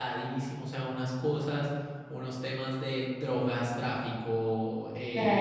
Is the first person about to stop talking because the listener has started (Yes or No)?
No